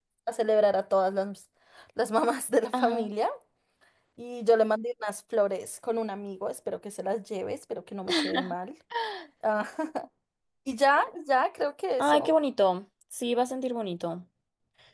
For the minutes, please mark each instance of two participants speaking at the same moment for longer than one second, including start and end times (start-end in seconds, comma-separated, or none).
none